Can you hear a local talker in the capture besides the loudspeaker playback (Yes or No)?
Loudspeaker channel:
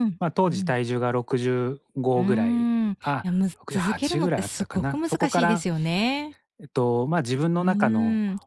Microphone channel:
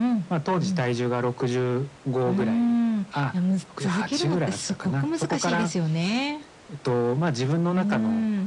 No